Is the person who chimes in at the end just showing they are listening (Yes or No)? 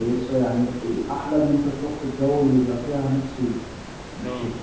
Yes